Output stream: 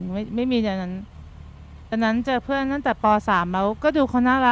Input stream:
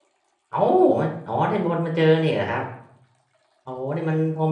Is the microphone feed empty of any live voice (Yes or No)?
No